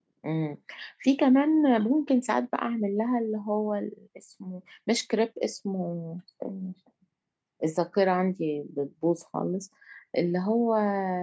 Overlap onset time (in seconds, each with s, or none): none